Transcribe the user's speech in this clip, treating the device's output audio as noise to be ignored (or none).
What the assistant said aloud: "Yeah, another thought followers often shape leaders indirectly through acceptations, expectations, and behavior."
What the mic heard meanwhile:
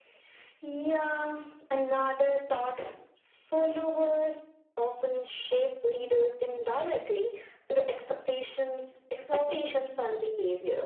so